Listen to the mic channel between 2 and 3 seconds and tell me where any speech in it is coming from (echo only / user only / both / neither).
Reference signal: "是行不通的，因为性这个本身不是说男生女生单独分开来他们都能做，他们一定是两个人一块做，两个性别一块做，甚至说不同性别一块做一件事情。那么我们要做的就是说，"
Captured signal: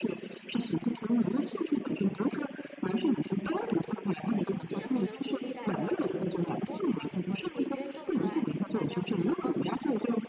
echo only